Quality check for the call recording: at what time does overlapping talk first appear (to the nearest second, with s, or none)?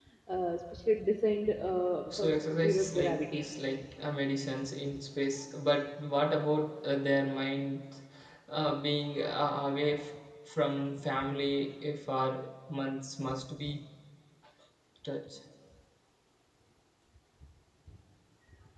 2 s